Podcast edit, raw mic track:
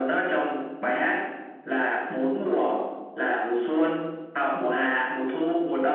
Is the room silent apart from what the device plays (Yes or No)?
Yes